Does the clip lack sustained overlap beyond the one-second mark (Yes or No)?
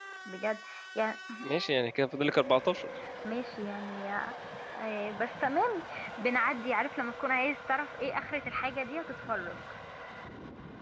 Yes